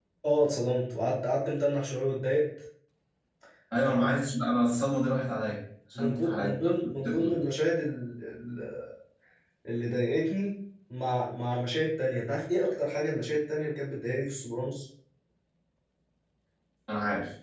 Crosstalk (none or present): present